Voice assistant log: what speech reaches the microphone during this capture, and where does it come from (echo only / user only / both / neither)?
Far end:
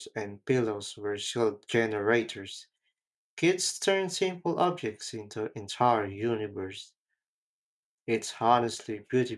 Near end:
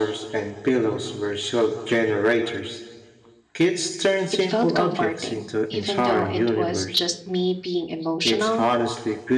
both